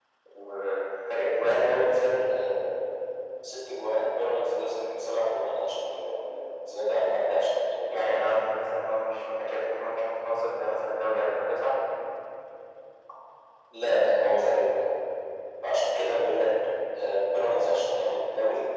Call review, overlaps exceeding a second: none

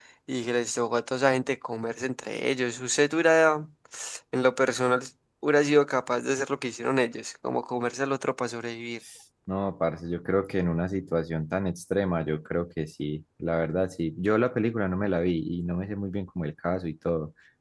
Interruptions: none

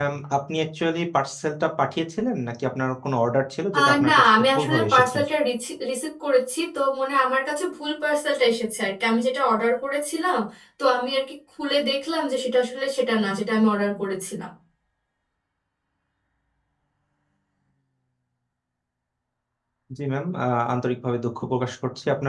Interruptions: present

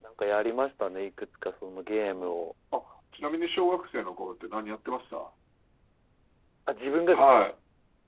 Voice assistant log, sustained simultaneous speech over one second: none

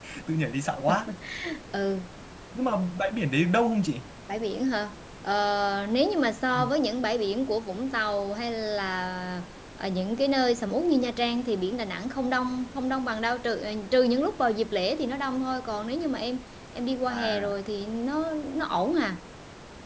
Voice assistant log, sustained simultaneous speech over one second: none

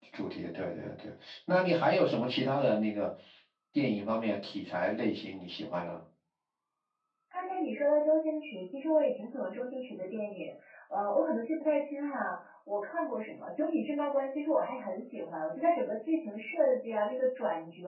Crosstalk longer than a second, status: none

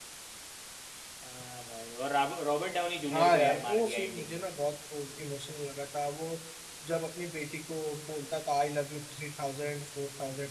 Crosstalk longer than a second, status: present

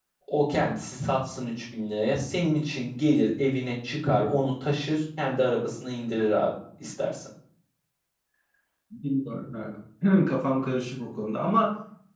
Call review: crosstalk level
none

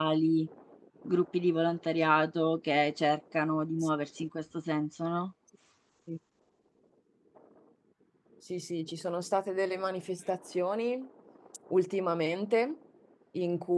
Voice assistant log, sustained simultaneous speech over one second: none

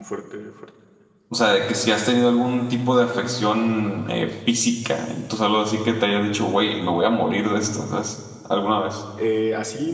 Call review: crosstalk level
none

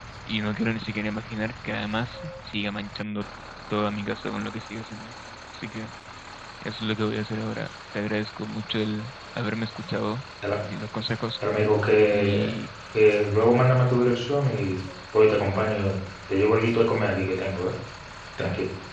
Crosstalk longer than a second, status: none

